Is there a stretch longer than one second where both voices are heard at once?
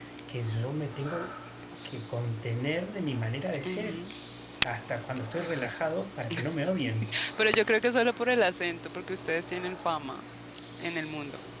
No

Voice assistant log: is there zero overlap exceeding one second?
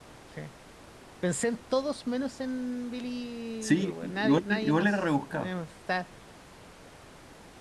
No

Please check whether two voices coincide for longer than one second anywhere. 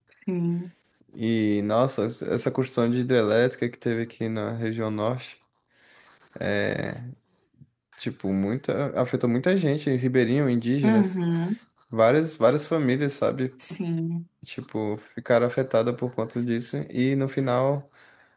No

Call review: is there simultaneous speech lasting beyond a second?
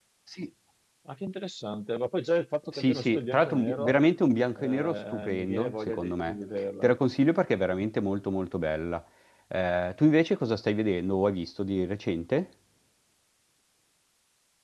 Yes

